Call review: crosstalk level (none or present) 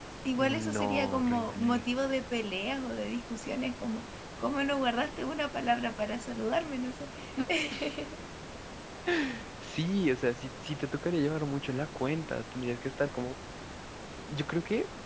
present